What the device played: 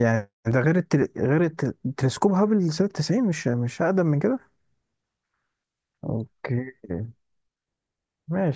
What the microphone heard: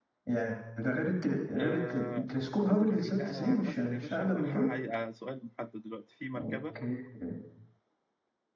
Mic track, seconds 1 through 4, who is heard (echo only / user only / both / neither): both